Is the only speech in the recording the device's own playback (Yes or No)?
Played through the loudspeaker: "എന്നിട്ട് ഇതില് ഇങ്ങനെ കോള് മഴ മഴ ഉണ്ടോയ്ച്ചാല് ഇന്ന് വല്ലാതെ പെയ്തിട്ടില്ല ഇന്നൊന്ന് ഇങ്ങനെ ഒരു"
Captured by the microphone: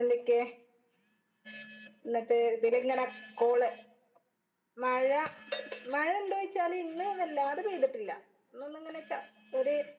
Yes